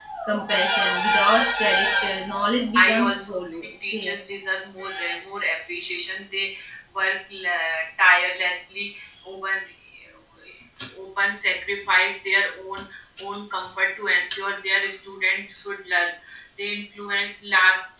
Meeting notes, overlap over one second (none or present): present